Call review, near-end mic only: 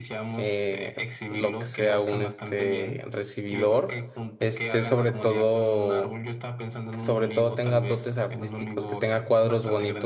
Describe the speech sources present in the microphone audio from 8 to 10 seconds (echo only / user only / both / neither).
both